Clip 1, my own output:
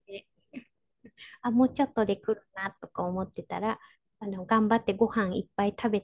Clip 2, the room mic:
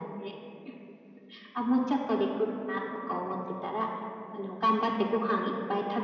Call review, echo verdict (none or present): present